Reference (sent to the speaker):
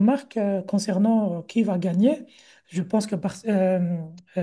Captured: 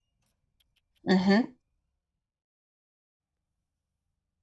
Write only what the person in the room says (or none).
Mhm,